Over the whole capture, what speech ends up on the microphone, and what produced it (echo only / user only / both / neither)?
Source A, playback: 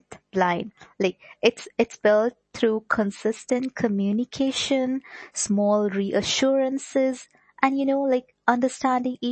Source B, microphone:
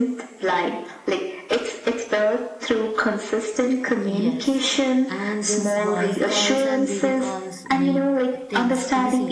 both